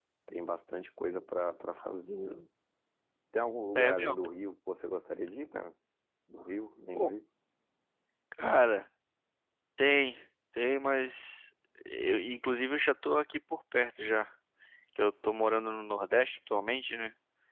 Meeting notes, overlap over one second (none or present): none